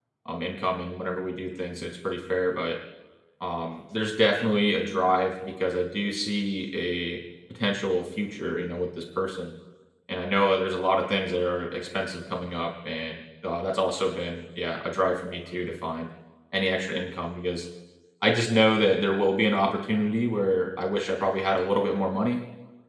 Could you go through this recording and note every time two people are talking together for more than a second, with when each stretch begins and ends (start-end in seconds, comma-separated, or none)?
none